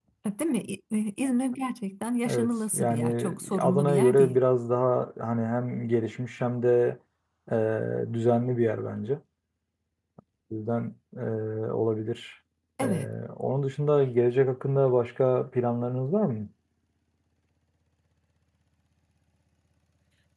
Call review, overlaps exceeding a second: present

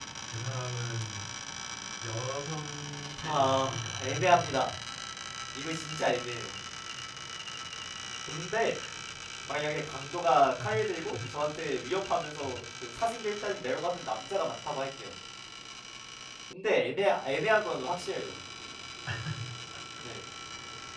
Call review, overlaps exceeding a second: present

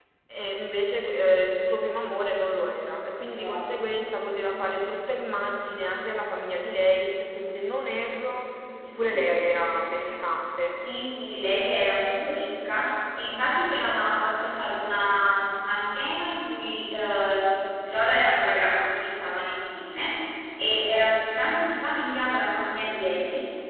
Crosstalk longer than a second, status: none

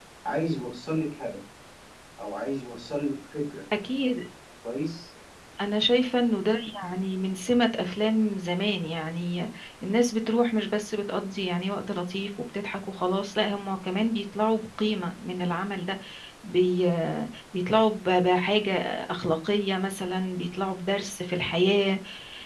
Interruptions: none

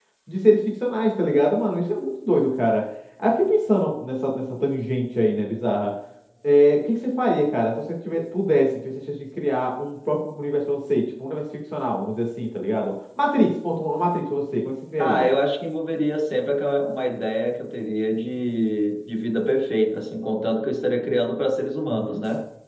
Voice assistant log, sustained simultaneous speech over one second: none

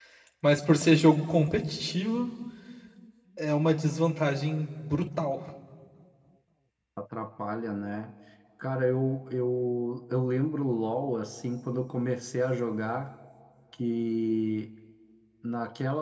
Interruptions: none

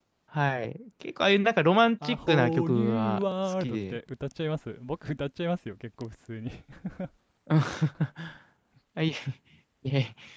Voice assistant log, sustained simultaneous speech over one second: present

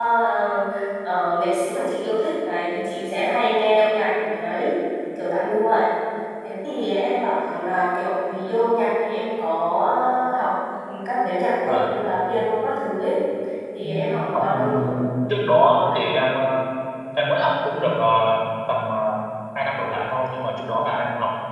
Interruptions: present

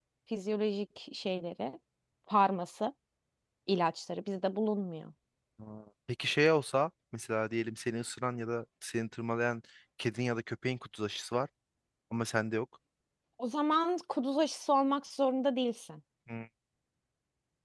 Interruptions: none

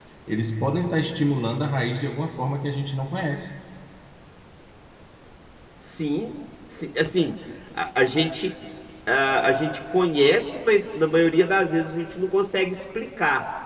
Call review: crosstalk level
none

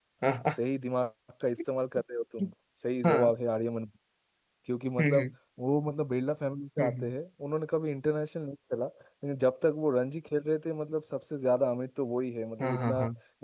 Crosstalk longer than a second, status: none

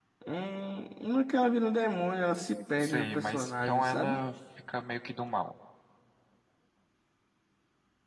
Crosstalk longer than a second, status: present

